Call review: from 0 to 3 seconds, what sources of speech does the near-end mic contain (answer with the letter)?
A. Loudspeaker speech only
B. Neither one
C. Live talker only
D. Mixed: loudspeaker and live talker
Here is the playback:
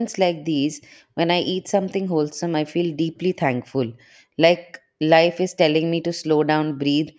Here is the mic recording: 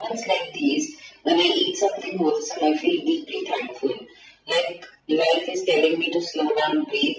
A